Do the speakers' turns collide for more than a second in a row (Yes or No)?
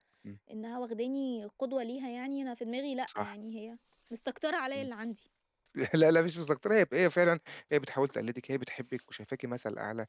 No